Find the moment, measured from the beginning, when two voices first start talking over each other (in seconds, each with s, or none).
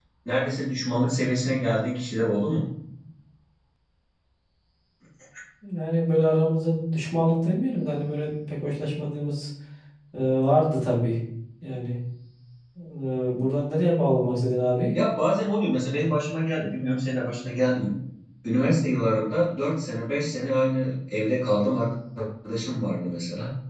none